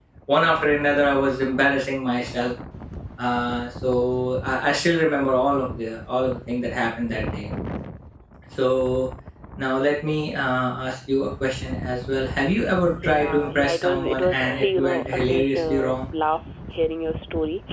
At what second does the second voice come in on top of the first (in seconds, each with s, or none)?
13.0 s